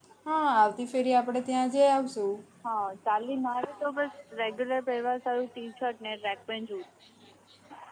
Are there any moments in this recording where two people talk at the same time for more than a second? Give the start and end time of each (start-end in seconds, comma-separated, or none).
none